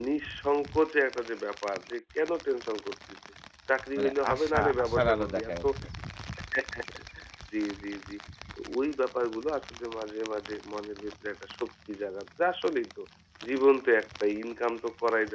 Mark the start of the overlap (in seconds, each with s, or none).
4.0 s